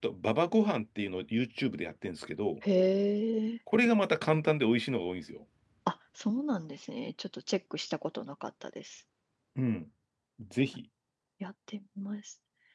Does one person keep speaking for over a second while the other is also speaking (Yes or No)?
No